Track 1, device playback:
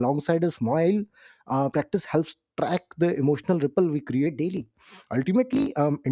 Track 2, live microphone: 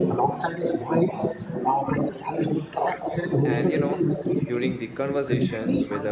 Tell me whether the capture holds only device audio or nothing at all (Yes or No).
No